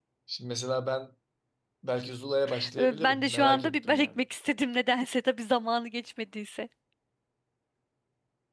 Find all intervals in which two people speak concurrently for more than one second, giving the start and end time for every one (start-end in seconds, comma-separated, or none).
2.8-4.1